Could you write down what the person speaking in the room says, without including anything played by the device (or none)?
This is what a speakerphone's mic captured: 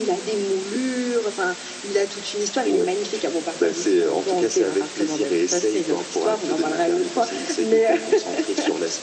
none